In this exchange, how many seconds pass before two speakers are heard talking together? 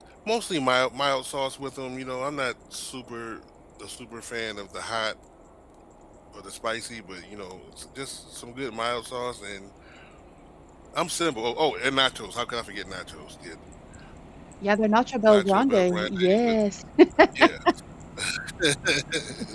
15.3 s

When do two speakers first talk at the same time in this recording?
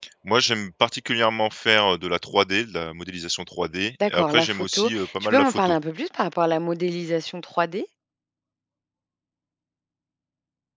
4.0 s

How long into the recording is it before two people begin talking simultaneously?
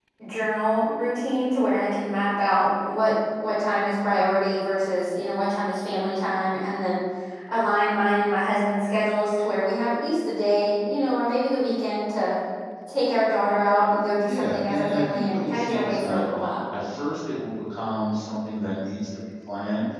14.3 s

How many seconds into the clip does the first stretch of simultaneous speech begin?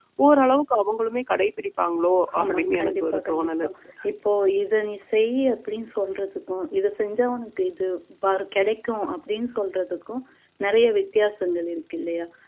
2.3 s

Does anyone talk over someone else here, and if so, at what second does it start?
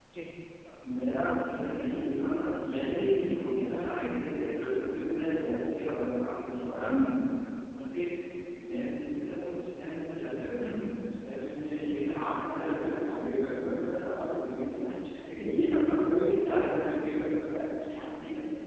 none

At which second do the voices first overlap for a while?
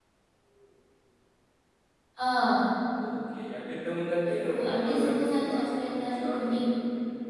4.4 s

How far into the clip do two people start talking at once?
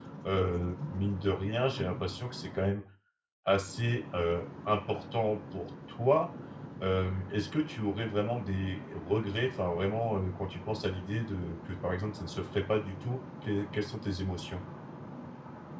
none

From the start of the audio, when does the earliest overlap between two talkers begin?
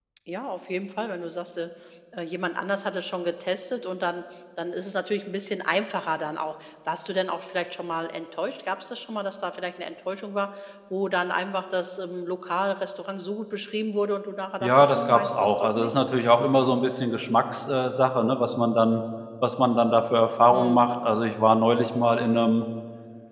14.6 s

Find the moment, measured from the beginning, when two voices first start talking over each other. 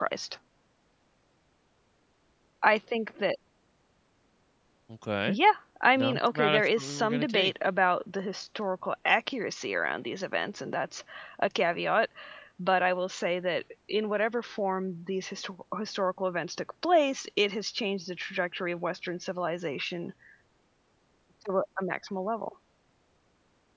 6.0 s

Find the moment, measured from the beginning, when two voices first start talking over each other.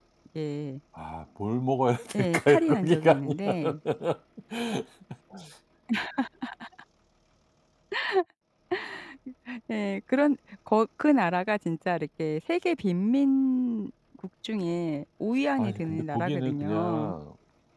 2.2 s

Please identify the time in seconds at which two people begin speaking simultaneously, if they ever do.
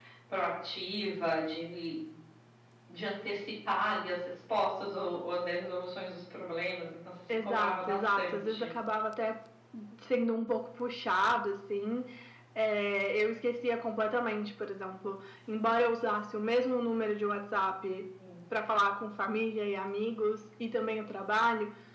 7.3 s

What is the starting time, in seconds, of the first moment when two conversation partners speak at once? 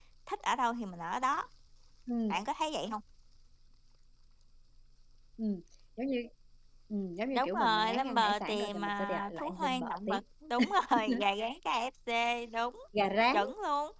7.3 s

